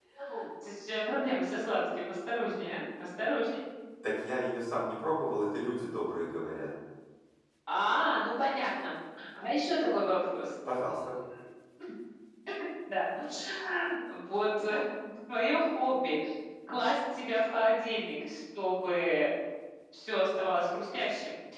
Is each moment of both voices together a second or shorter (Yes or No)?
Yes